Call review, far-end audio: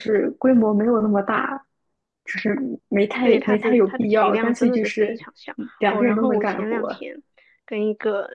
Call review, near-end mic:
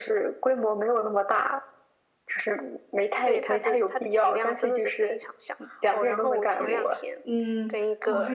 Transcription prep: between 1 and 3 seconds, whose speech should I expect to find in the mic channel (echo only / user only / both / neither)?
echo only